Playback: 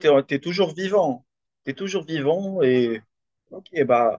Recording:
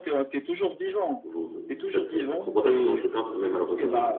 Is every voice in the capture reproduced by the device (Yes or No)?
No